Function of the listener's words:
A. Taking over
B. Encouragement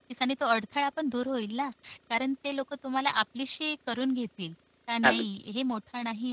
B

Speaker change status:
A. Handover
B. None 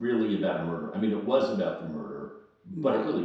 B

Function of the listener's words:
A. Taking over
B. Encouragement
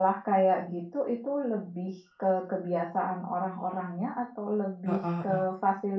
B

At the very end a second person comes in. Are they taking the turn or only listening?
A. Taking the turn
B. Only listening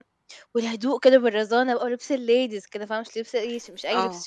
A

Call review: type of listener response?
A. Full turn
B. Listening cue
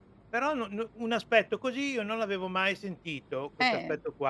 B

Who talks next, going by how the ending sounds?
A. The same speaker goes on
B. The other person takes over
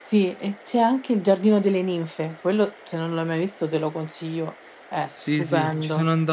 B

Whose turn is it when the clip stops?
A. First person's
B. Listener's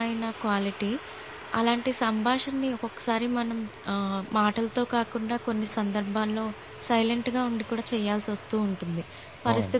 A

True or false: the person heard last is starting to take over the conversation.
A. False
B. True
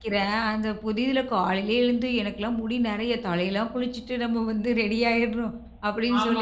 A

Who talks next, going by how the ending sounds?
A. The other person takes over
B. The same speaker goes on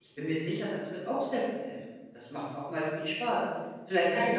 A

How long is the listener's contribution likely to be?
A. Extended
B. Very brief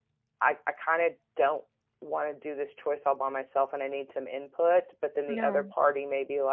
B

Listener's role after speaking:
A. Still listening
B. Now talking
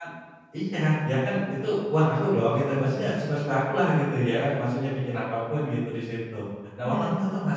A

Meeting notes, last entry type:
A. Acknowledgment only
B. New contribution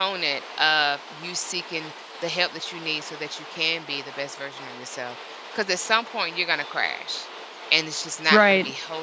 A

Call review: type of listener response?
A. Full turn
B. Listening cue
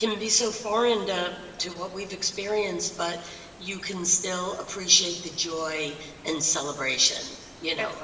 A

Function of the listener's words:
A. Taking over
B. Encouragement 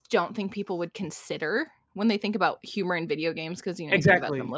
A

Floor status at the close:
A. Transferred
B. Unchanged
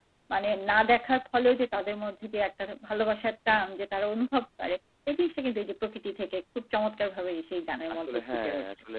A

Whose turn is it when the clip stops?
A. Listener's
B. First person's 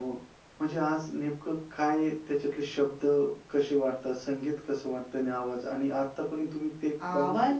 A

